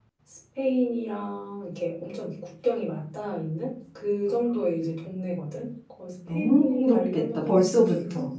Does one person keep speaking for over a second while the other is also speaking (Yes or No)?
Yes